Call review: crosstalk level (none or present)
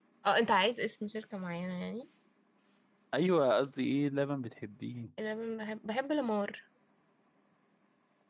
none